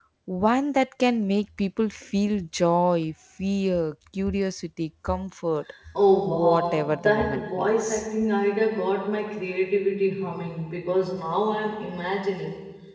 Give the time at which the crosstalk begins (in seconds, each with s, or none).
6.2 s